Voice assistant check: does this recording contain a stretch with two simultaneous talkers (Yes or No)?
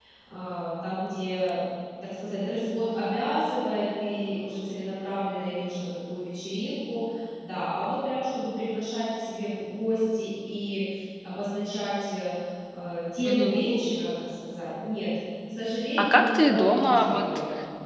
Yes